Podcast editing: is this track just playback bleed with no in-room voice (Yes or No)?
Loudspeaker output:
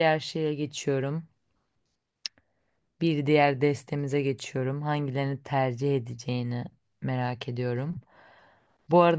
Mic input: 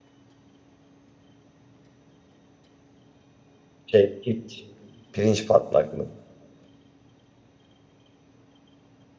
No